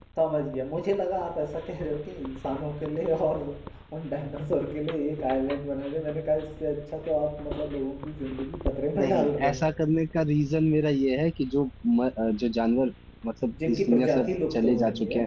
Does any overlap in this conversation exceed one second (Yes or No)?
Yes